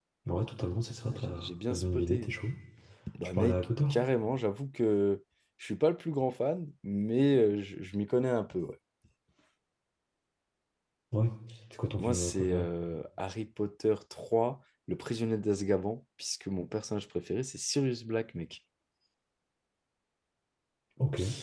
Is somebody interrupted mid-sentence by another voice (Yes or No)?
Yes